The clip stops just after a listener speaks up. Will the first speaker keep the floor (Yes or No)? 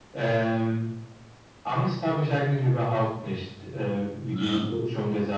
Yes